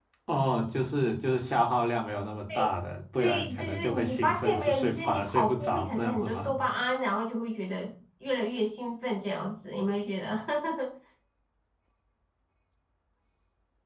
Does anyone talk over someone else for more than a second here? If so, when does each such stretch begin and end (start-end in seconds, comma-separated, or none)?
3.2-6.5